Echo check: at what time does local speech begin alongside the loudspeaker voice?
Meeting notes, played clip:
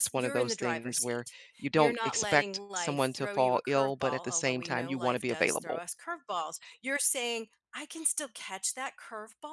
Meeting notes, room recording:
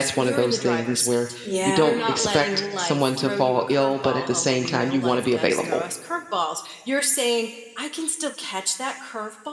1.4 s

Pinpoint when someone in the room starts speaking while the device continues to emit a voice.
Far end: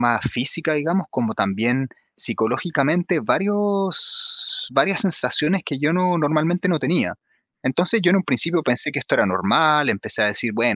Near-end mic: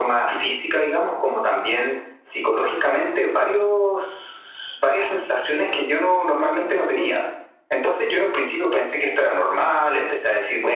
none

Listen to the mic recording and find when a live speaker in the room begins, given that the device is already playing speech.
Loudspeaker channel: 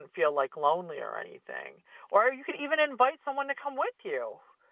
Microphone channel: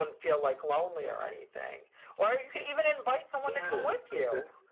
3.4 s

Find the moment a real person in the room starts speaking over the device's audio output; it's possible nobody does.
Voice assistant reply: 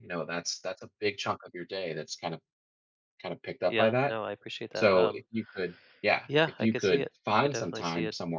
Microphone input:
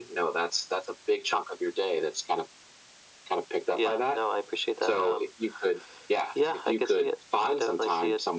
none

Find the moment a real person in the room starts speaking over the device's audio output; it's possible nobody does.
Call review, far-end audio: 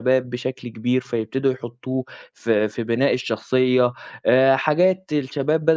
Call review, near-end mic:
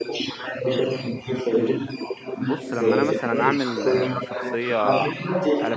2.3 s

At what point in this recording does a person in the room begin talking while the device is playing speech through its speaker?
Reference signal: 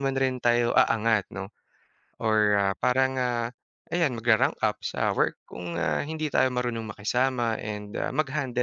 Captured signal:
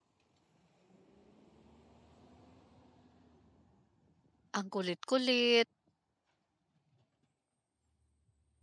4.5 s

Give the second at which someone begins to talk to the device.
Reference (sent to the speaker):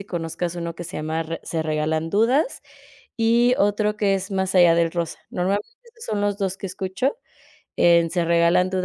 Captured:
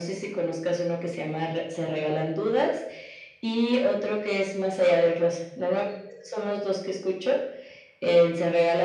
none

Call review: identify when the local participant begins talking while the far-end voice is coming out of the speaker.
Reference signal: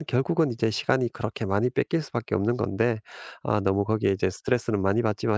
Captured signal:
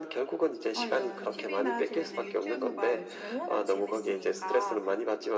0.7 s

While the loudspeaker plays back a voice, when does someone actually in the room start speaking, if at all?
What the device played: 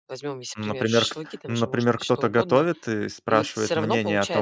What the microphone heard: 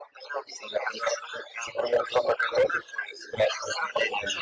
none

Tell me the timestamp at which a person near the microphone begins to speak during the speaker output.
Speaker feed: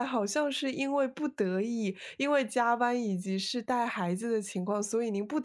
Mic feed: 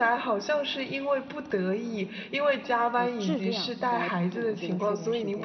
2.9 s

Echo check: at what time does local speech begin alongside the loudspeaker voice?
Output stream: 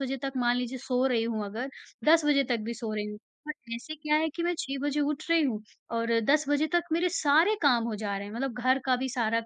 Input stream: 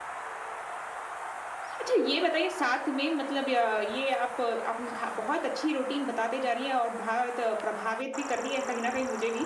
1.8 s

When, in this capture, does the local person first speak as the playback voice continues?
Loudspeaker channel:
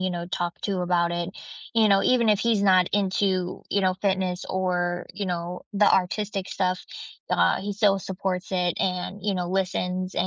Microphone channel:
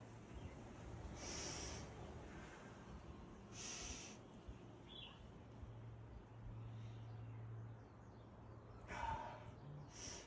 none

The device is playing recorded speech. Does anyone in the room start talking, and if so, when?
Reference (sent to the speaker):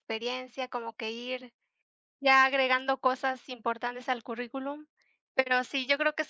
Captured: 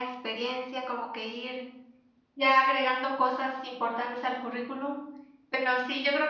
none

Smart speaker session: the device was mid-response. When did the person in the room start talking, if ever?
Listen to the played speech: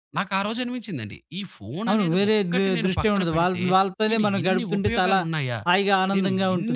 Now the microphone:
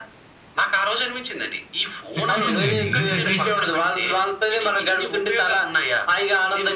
2.2 s

